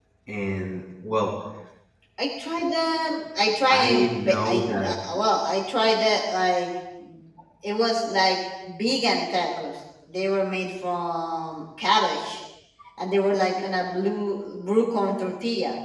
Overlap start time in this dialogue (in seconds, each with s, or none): 3.7 s